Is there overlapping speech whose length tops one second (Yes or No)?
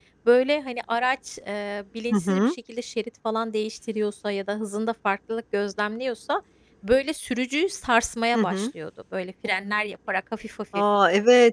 No